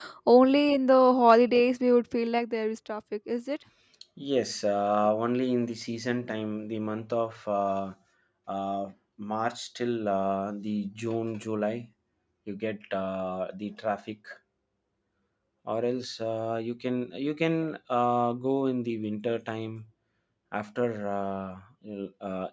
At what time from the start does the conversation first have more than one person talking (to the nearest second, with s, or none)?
none